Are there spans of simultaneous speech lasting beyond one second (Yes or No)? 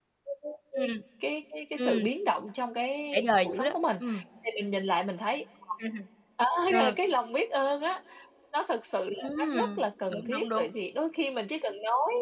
Yes